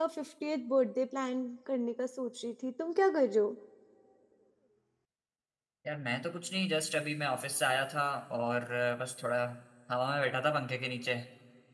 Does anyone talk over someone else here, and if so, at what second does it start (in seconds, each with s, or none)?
none